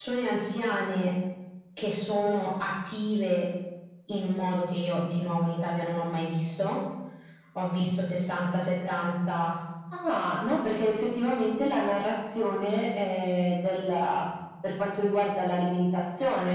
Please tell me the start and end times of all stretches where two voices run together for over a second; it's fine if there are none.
none

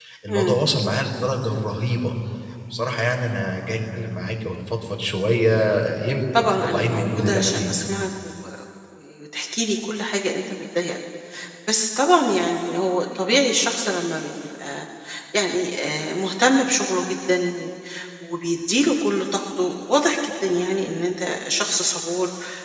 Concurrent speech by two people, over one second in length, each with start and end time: 6.4-7.8

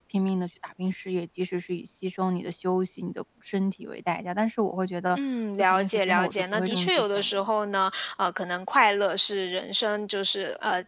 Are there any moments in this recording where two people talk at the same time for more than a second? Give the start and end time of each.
5.6-7.3

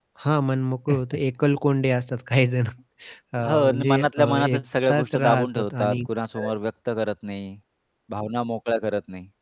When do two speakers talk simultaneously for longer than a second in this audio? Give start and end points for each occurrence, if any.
3.4-6.0

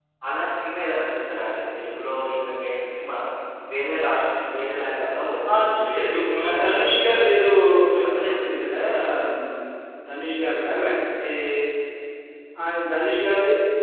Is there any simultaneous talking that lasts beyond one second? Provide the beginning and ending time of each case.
5.5-7.2

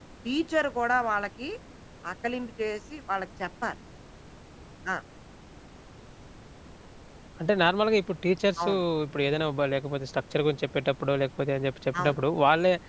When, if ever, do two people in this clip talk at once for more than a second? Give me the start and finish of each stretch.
none

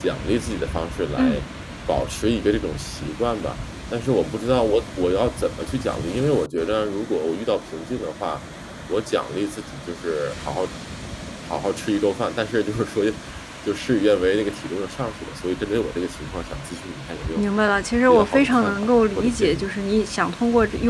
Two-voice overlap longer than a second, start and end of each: 18.1-19.7

